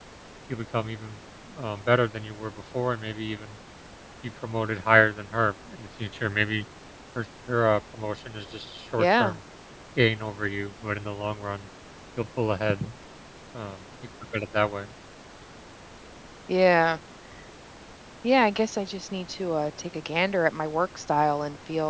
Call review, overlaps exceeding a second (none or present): none